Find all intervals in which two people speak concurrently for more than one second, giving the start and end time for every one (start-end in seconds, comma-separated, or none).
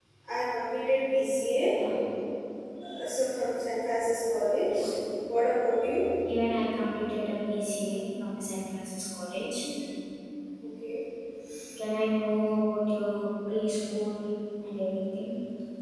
none